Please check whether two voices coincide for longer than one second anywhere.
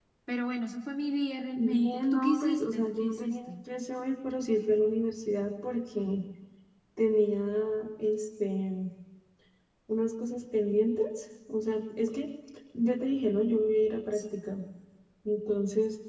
Yes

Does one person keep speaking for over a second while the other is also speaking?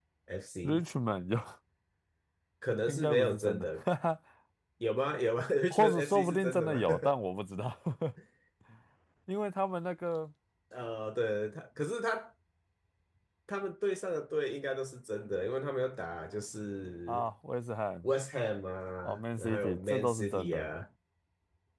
Yes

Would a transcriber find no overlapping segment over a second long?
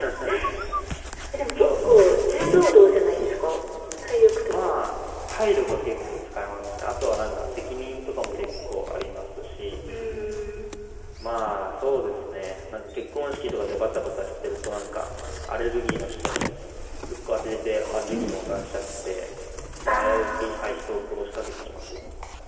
No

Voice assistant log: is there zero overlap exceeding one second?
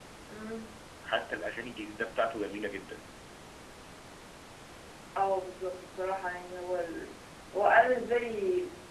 Yes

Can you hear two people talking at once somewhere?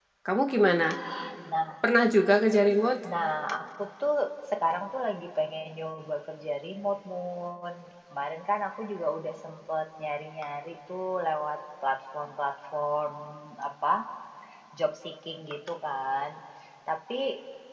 No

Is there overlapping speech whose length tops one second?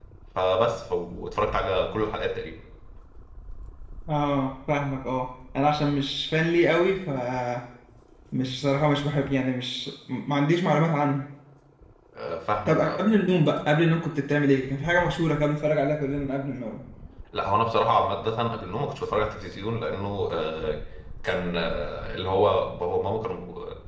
No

